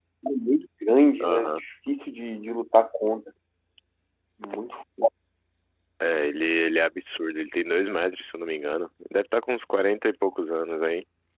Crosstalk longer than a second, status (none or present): none